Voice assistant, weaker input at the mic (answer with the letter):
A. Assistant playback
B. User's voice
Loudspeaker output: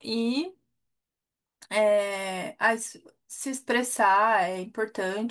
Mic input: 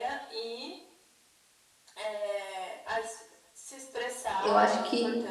A